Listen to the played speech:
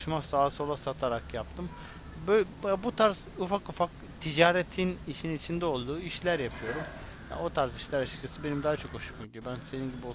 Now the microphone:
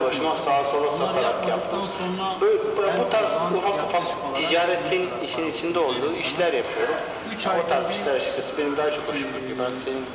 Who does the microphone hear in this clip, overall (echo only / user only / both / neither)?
both